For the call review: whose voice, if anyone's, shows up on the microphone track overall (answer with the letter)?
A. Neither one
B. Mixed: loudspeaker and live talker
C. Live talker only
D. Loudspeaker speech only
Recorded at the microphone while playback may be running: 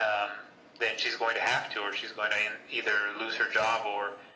D